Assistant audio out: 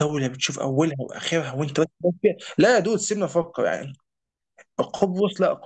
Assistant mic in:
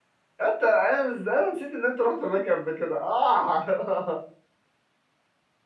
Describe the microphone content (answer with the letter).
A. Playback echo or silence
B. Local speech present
B